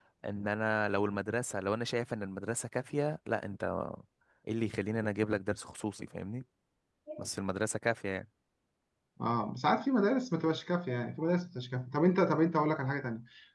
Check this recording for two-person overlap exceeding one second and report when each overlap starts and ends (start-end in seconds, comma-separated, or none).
none